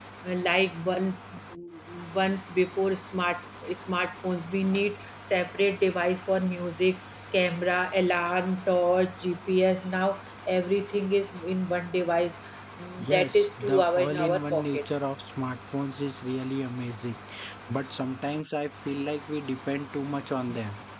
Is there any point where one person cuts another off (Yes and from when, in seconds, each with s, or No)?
Yes, from 13.0 s